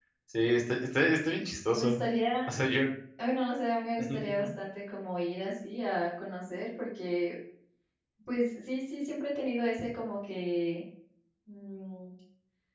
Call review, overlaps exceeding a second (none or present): none